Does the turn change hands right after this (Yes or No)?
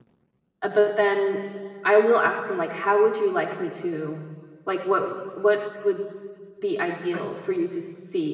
No